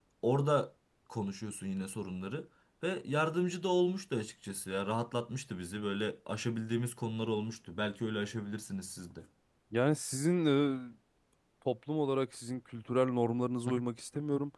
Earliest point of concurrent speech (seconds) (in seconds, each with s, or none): none